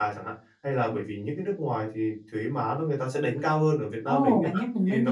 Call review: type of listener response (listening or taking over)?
taking over